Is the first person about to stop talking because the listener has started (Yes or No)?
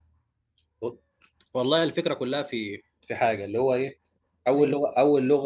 No